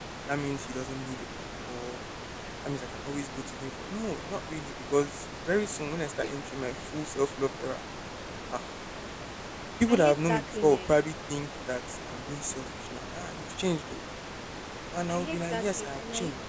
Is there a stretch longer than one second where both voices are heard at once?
Yes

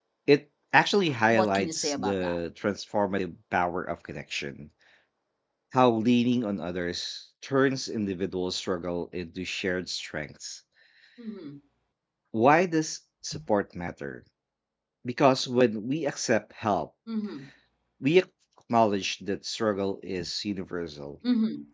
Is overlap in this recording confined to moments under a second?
No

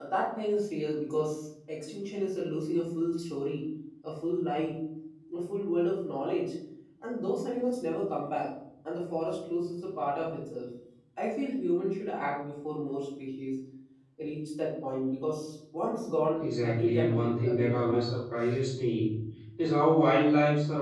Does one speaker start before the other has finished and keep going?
Yes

